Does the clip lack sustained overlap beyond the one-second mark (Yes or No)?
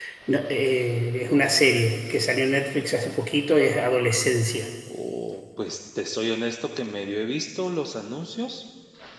Yes